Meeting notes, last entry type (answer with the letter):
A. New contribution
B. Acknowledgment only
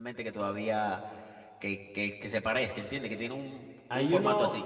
A